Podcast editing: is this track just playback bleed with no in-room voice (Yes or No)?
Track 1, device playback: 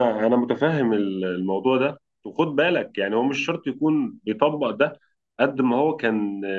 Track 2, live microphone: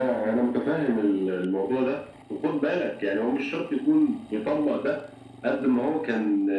Yes